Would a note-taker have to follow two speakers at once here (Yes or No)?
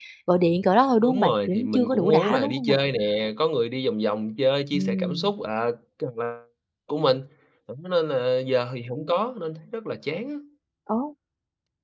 Yes